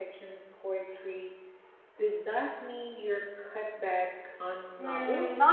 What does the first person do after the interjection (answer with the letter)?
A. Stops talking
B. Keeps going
A